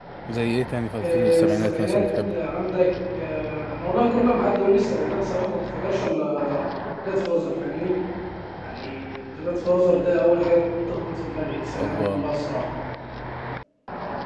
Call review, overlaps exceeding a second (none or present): present